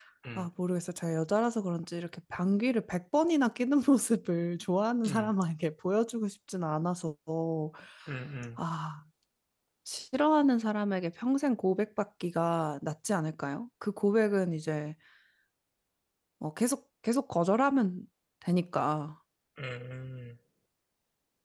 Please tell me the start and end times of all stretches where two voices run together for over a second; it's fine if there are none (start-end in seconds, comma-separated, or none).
none